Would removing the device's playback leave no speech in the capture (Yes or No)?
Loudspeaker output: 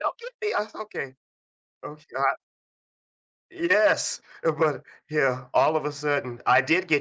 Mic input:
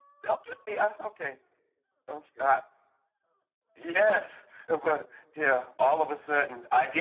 Yes